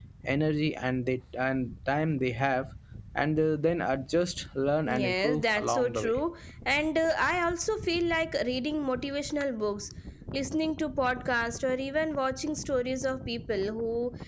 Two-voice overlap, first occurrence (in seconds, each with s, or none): 4.8 s